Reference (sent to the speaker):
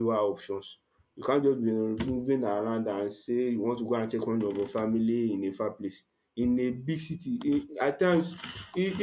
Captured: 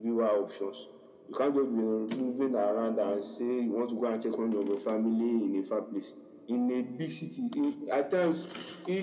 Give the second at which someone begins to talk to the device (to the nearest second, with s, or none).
none